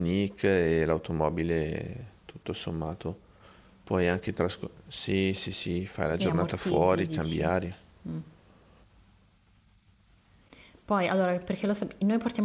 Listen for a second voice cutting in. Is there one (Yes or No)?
Yes